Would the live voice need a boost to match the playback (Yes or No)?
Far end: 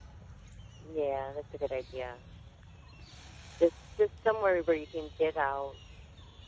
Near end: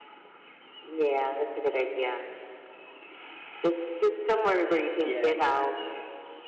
Yes